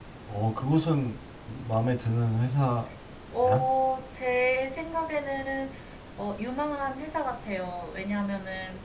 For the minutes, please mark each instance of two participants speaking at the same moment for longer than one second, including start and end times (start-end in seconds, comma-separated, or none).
none